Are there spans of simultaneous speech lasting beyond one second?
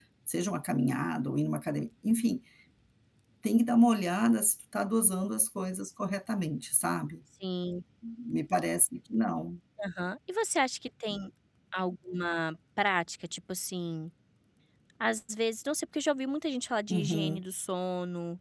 No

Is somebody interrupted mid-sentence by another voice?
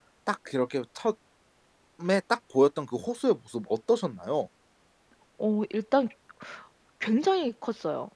No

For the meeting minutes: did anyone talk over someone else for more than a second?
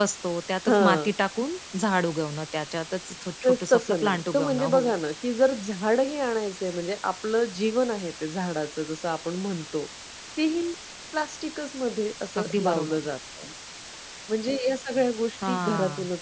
Yes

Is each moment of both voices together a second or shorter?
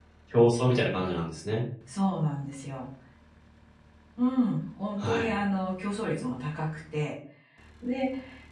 Yes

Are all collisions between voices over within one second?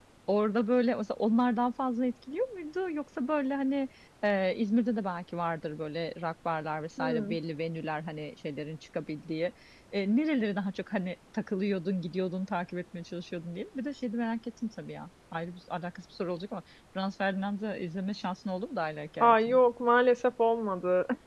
Yes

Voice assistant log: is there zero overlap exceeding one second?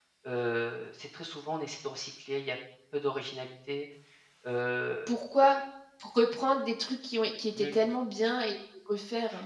Yes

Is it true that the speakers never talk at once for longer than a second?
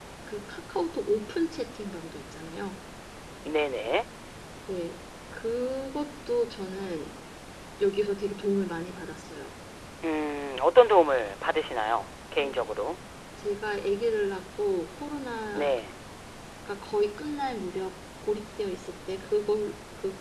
Yes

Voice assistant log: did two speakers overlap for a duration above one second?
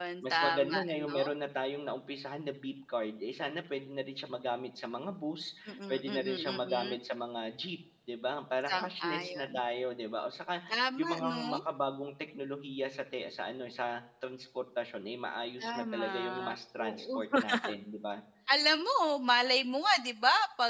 Yes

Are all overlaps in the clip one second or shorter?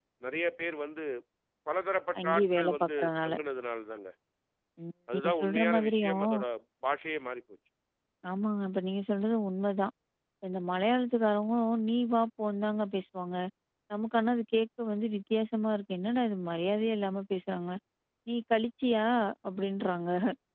No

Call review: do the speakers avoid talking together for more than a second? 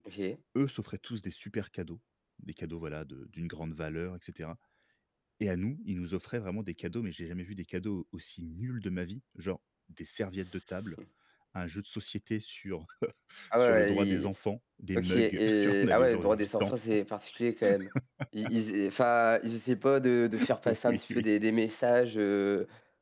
No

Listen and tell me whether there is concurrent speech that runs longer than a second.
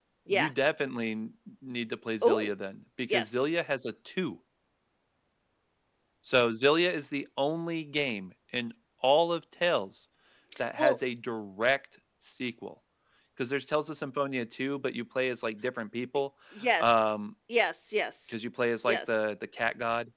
No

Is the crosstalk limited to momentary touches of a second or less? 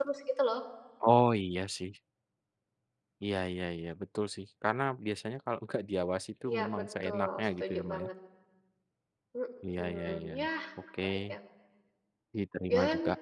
No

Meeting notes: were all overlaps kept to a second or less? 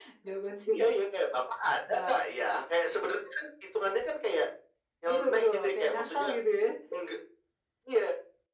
No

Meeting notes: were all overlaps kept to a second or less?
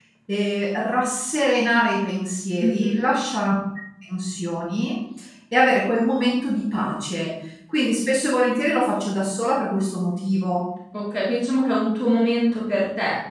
Yes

